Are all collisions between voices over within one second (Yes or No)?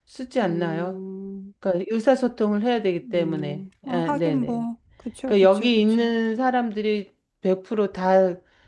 No